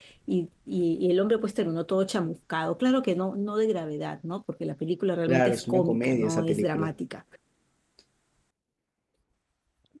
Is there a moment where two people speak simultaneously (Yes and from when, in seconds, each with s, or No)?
Yes, from 5.3 s